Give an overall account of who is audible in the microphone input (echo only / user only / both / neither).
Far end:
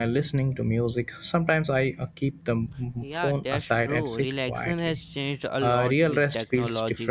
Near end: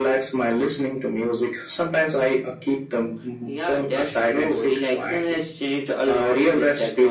echo only